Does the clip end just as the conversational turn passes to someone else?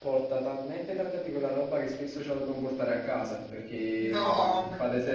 No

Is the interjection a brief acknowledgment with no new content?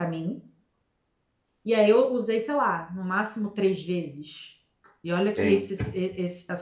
Yes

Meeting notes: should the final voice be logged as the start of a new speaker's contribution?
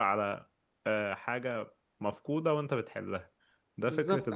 Yes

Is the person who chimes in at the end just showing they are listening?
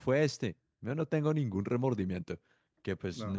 Yes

